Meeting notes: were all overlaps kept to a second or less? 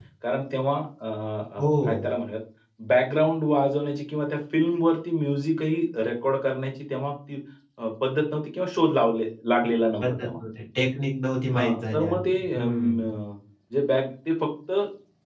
No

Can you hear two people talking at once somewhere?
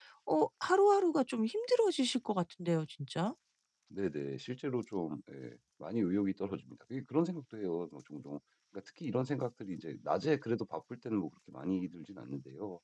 No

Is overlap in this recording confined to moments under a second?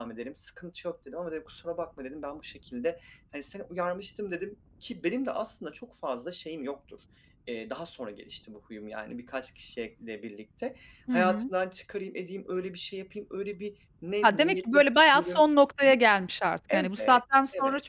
No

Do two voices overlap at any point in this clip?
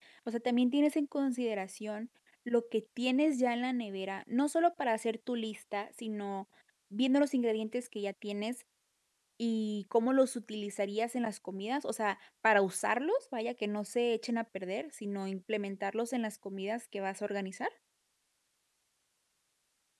No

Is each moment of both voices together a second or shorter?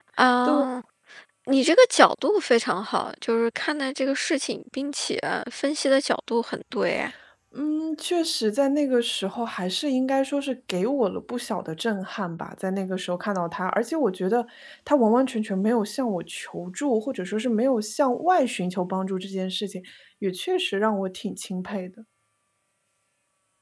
Yes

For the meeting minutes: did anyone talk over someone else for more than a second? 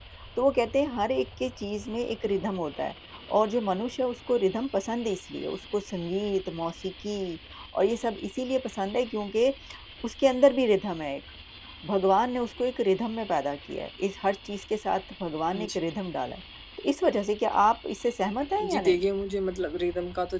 No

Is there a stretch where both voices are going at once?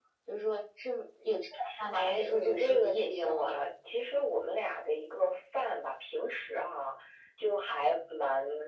Yes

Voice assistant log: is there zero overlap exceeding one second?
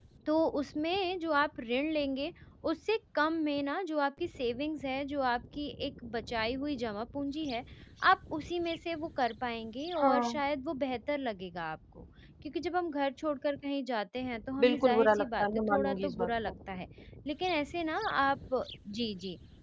No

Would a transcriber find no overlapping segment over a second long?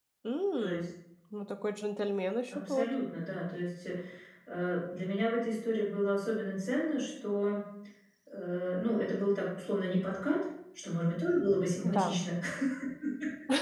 Yes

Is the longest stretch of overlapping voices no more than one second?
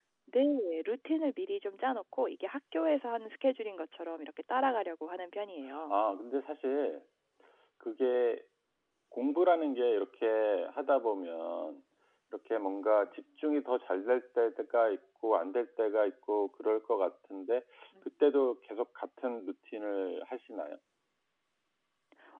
Yes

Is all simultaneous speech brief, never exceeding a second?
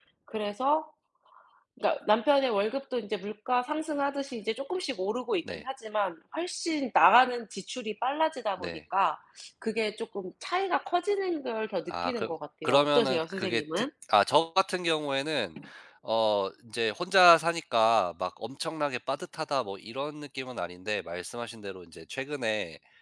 No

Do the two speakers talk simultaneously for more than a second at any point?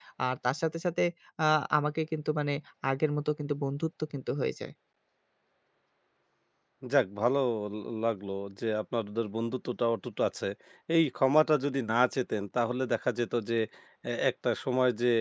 No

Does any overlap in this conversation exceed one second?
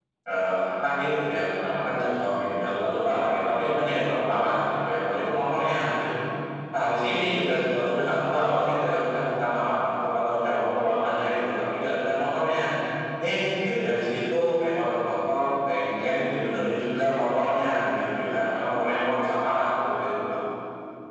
No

